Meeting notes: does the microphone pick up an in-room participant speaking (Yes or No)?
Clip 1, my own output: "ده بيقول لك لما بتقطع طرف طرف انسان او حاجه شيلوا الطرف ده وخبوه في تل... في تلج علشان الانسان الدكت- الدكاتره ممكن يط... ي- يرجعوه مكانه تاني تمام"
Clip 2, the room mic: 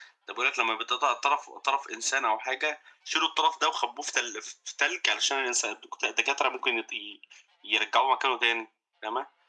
No